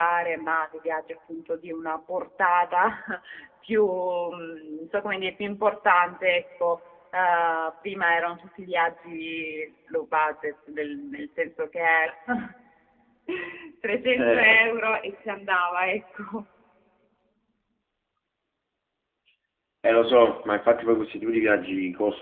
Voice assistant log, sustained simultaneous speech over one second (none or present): none